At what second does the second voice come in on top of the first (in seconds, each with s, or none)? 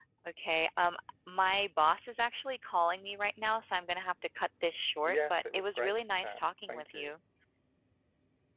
5.0 s